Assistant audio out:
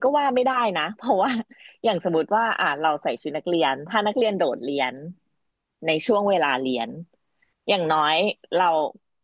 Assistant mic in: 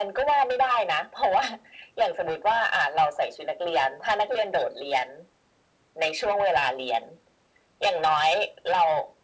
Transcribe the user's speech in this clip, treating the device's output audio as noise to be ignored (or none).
none